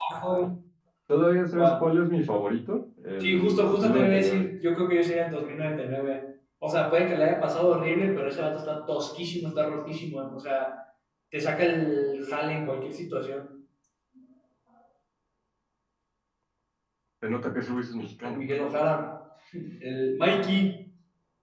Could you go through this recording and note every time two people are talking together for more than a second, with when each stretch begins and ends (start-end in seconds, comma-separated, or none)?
3.2-4.5